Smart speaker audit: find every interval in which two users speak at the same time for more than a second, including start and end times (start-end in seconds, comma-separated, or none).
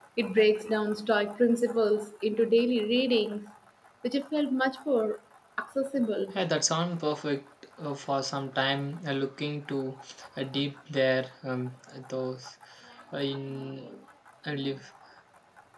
none